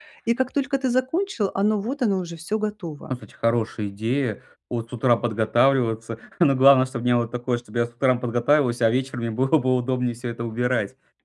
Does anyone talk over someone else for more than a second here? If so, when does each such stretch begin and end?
none

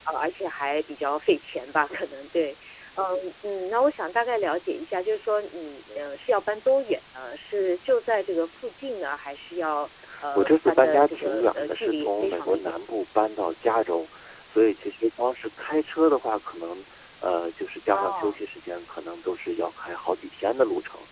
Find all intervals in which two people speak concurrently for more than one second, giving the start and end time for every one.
10.3-12.7

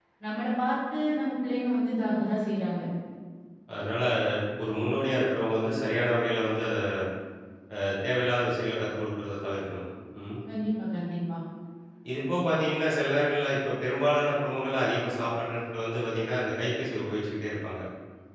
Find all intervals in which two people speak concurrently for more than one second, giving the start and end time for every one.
none

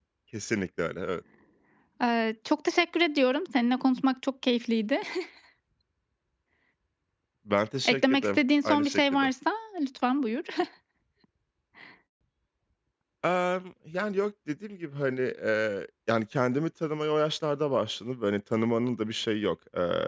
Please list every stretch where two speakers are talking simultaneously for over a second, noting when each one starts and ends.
7.8-9.3

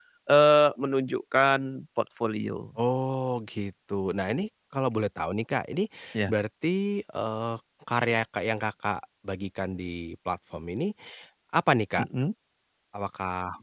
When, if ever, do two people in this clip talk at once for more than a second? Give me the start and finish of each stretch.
none

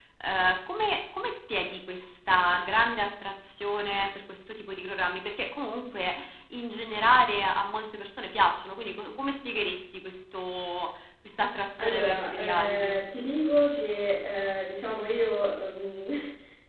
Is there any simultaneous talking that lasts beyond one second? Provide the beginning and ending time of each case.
11.8-13.0

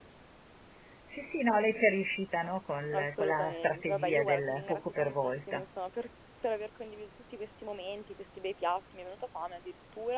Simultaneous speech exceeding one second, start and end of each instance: 2.9-5.6

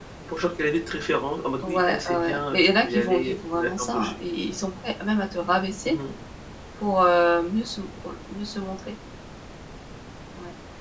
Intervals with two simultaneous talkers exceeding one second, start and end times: 1.6-4.1

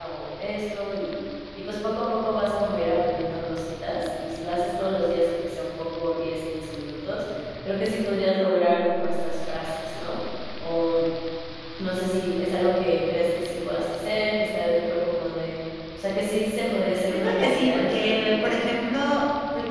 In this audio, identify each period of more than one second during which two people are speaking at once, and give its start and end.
17.1-18.5

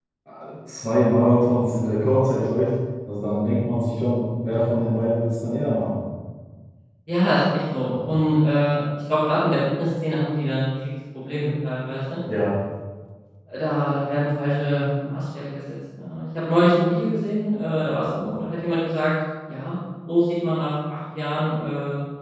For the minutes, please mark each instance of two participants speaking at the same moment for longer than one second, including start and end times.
none

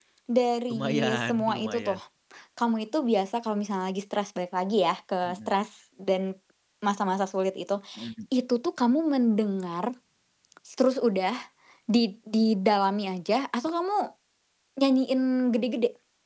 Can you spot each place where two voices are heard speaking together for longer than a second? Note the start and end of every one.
0.7-2.0

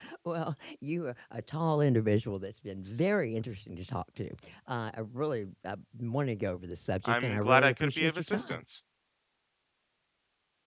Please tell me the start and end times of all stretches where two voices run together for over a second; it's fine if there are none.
7.0-8.6

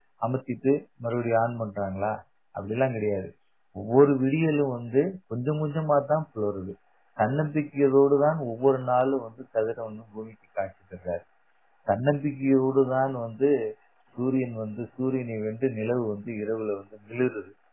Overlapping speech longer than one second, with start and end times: none

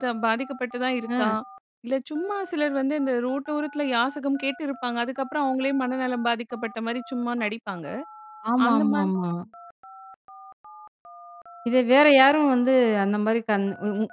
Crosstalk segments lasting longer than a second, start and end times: none

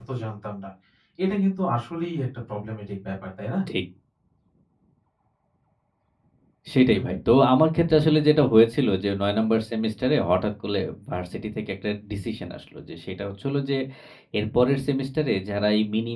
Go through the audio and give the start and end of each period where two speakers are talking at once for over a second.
none

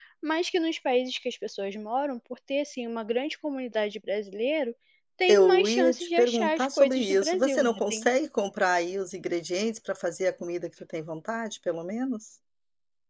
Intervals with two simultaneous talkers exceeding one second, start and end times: 5.3-8.1

